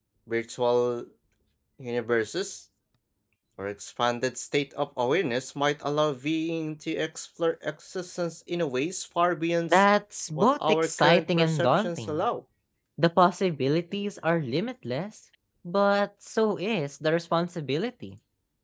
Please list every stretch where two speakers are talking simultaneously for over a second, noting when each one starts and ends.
10.4-12.3

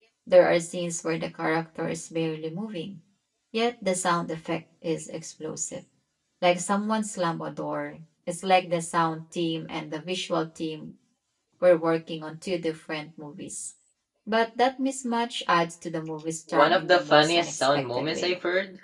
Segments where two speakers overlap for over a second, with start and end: 16.5-18.4

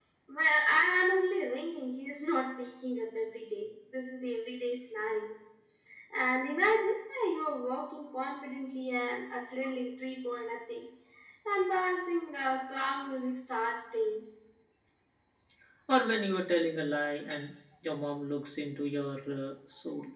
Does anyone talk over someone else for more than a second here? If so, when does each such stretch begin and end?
none

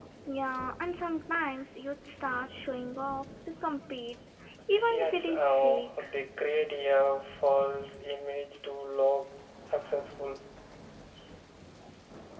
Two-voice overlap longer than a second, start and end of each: 4.8-6.0

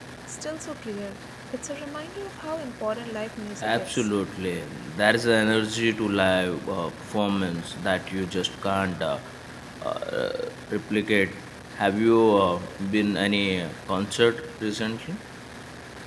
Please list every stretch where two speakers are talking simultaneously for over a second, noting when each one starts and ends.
none

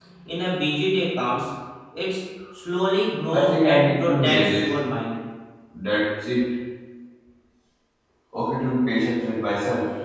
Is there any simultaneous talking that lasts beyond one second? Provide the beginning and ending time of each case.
3.3-4.7

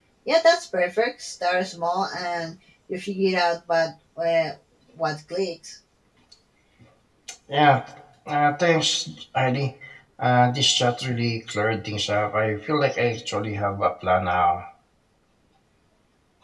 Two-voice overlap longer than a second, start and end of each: none

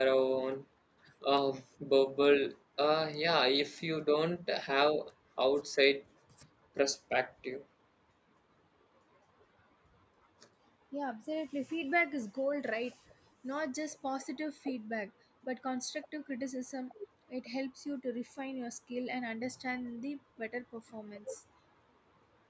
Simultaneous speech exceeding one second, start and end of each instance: none

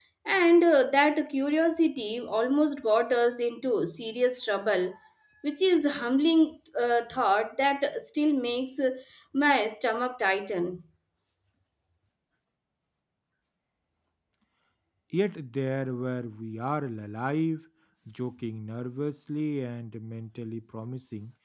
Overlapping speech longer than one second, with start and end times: none

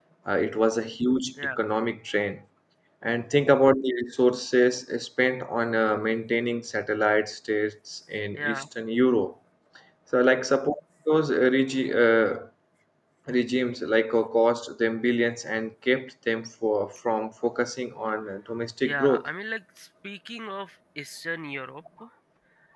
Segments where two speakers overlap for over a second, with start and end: none

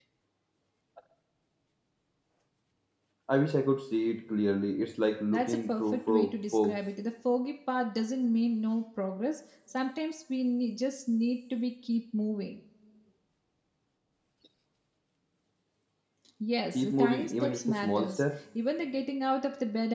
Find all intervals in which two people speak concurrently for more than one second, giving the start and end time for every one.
5.3-6.8, 16.7-18.2

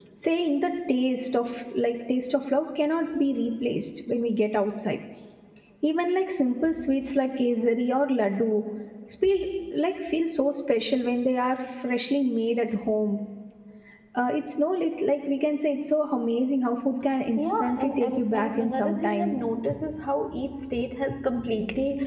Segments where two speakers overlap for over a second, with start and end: 17.4-19.4

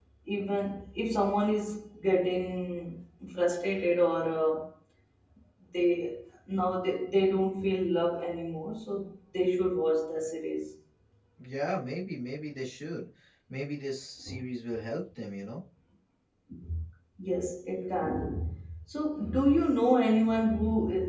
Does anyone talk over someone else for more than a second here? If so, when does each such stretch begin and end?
none

